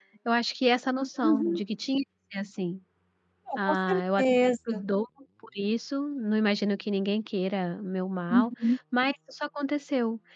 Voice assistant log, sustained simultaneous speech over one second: present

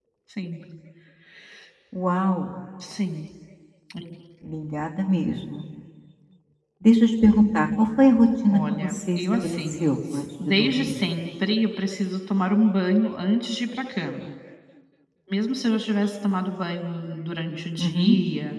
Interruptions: present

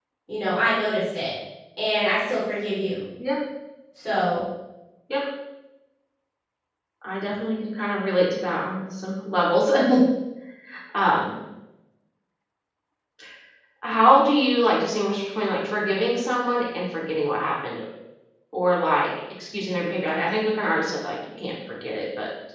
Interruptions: none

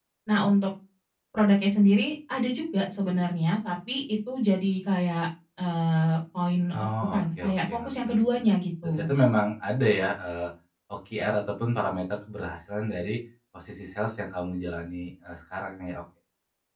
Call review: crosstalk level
present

